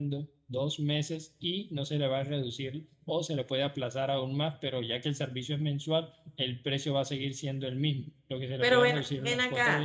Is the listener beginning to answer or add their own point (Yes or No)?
Yes